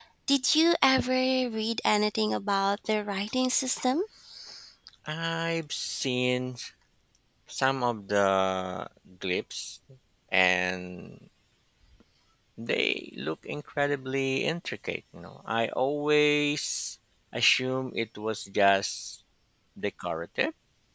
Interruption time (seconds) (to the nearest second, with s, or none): none